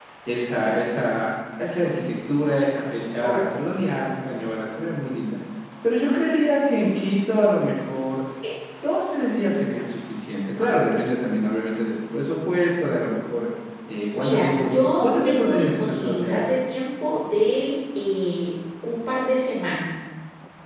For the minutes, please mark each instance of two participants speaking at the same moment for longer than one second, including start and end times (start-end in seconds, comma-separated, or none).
14.1-16.5